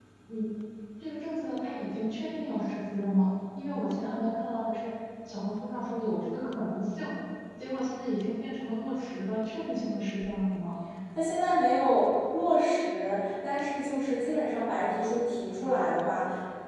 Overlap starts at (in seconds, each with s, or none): none